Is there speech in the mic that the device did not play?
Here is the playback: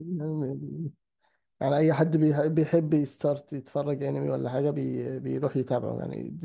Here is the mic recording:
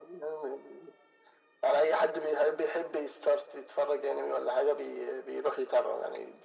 No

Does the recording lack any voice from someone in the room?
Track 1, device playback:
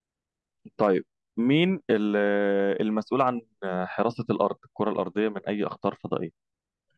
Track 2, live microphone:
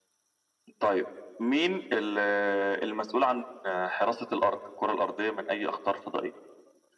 Yes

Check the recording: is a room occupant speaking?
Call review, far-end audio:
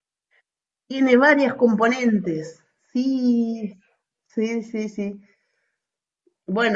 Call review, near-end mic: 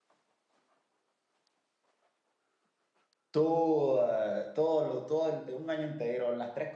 Yes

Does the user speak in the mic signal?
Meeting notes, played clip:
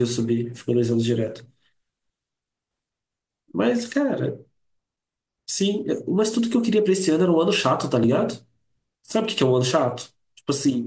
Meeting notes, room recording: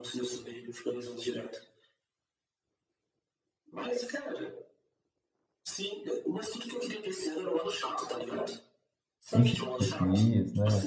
Yes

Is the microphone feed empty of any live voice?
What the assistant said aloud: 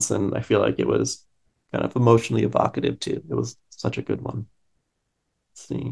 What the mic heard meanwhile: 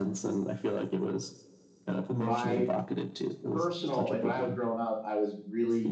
No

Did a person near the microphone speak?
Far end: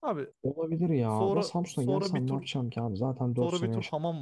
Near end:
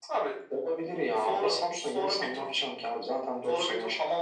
No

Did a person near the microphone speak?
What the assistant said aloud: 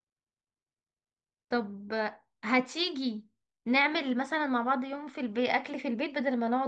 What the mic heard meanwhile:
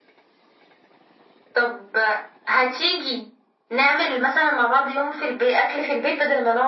No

